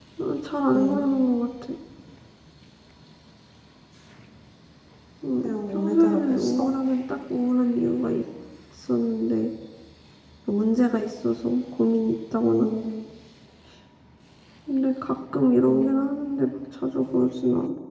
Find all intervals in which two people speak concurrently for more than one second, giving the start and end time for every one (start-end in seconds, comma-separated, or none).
5.4-6.7